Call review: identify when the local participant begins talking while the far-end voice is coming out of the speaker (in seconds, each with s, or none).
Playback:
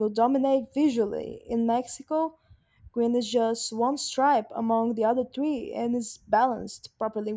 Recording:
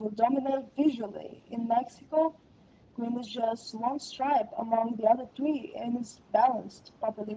none